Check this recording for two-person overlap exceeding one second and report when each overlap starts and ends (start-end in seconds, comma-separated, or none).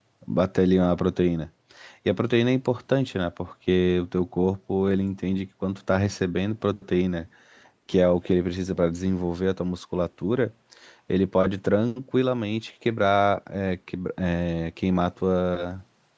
none